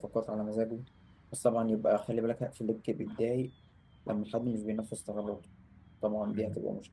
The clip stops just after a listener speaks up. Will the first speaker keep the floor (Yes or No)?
Yes